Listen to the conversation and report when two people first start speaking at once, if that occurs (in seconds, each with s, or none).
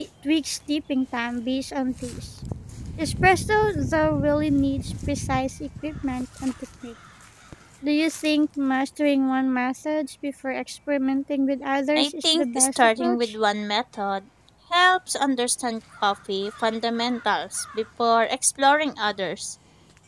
12.0 s